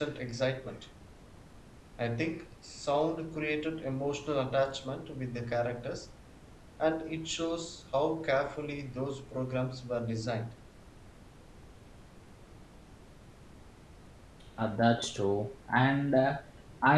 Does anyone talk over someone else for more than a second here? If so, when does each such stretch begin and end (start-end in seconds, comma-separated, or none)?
none